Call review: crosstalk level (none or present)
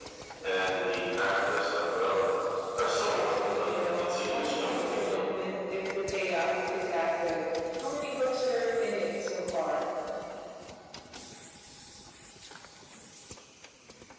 present